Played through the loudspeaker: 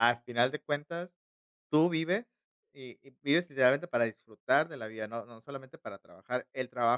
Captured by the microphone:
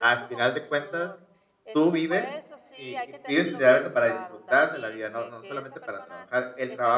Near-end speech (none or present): present